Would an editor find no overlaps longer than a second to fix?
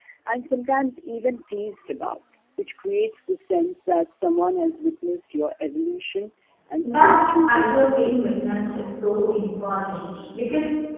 No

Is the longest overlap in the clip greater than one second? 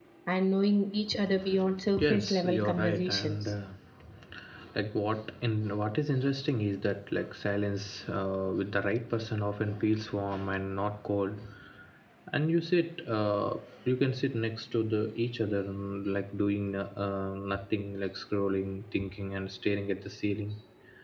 Yes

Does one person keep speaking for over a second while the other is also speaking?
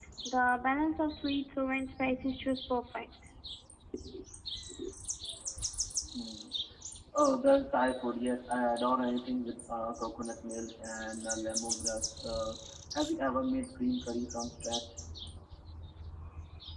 No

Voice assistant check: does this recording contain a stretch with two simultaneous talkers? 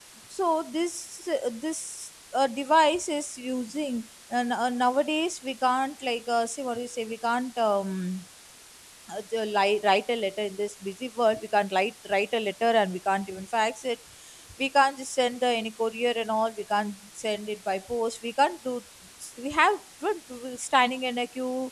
No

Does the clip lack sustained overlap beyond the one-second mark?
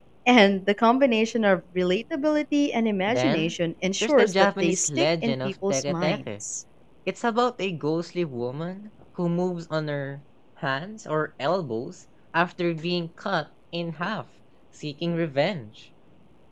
No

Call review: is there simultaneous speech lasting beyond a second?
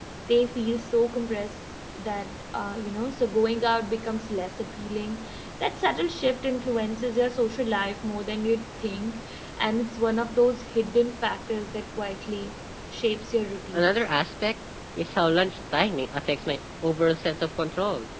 No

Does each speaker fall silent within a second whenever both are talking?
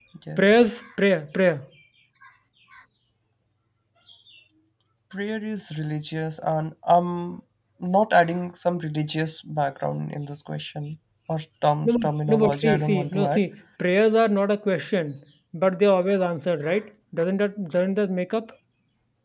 No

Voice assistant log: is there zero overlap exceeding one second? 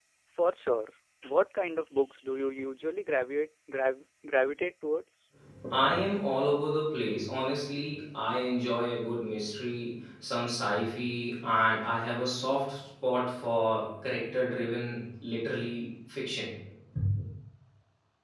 Yes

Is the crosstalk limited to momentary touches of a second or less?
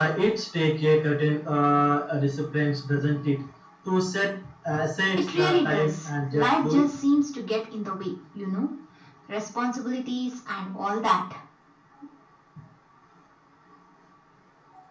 No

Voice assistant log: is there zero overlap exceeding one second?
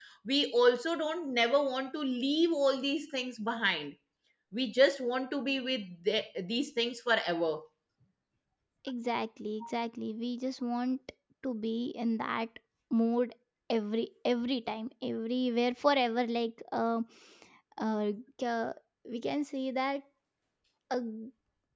Yes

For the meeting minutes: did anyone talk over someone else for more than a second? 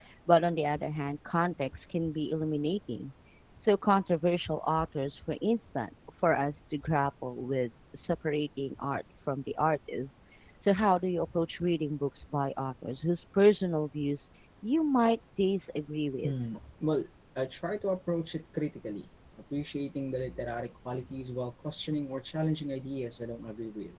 No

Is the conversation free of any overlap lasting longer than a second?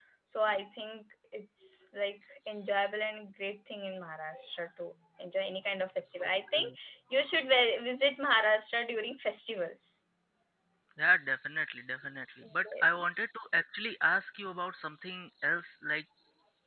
Yes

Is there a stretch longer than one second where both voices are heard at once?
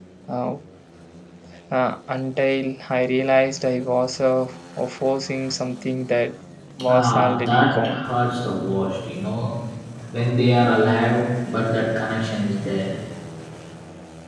Yes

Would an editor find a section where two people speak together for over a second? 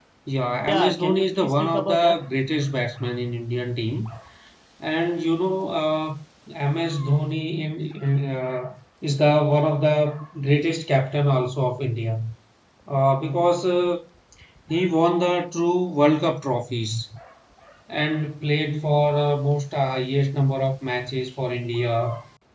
Yes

